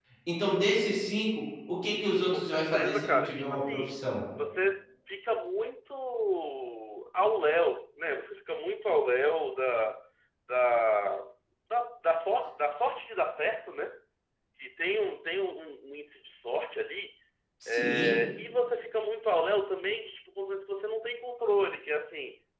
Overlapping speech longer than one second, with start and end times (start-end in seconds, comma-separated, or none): 2.3-4.0